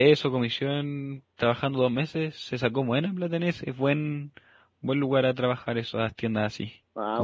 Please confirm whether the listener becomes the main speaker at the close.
Yes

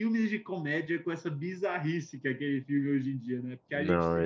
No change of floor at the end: No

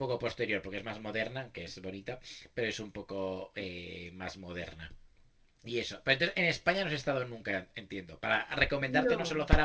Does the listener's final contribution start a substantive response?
No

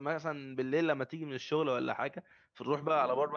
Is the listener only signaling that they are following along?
Yes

